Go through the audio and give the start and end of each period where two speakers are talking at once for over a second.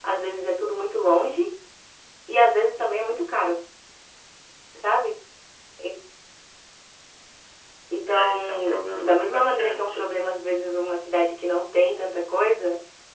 8.1-10.0

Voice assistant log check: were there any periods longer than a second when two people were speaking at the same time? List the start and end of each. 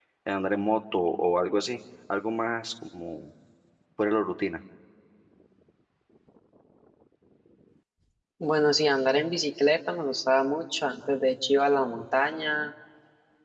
none

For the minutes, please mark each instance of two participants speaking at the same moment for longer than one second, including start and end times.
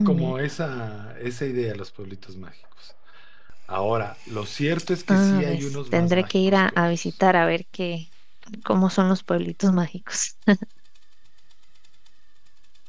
5.1-7.1

